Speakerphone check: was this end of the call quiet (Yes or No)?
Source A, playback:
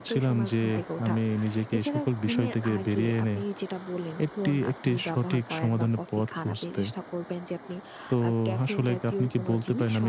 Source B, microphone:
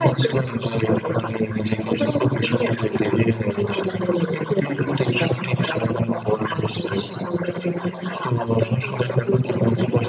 Yes